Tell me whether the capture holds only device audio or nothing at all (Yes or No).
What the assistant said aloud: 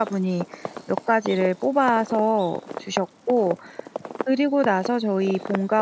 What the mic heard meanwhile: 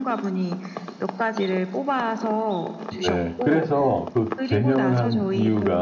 No